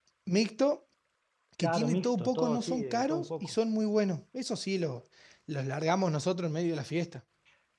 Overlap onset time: 1.6 s

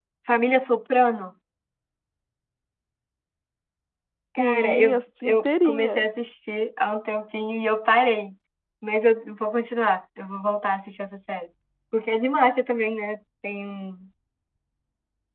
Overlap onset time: 4.4 s

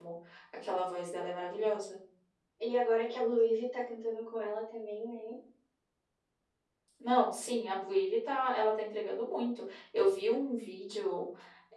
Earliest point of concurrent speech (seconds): none

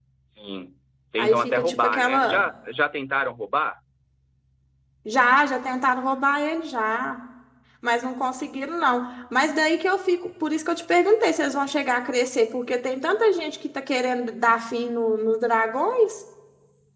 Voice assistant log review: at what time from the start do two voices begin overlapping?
1.2 s

